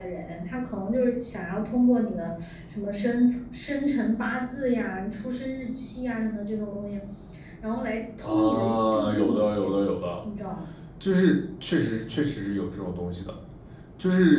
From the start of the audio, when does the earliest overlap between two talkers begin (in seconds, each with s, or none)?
8.2 s